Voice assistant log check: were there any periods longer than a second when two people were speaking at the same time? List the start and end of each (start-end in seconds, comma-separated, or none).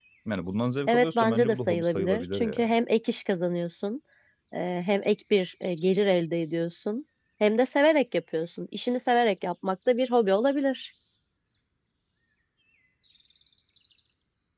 0.9-2.7